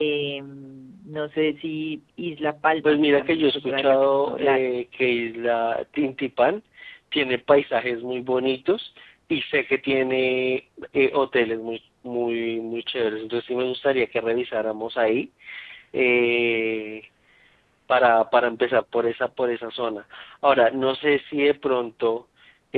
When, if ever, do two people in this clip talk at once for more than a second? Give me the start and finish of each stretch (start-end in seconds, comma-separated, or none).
2.8-4.7